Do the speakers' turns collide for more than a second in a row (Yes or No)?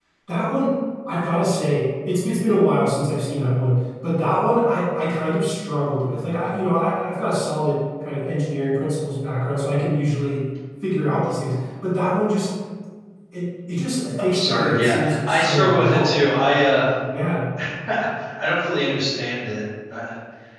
Yes